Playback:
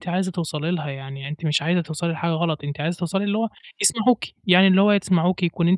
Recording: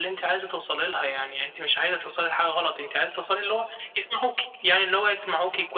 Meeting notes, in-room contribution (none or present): none